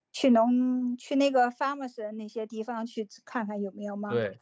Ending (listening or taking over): taking over